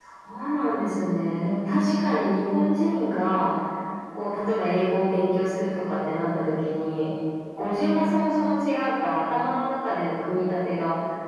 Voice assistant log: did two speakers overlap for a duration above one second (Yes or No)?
No